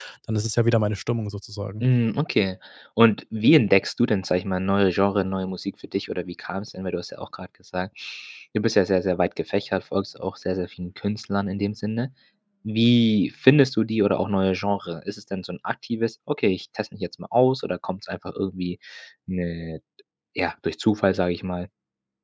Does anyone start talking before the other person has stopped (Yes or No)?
No